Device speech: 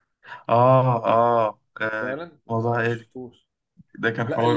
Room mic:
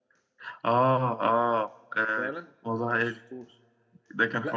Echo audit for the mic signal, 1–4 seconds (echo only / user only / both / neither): echo only